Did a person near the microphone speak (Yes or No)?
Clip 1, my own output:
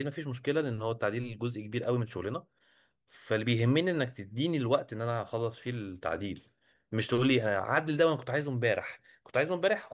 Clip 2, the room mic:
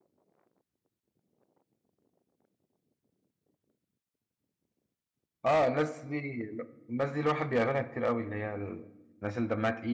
Yes